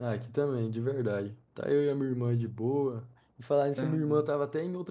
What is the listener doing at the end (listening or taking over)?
listening